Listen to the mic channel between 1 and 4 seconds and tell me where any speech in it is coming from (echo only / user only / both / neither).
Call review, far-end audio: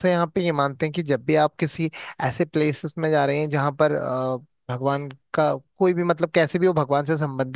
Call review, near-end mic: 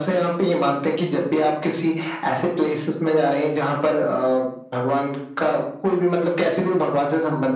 echo only